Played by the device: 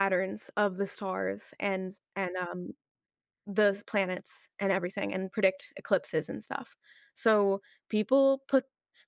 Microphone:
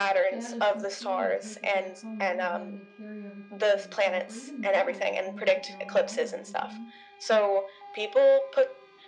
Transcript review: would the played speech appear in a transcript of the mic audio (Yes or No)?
Yes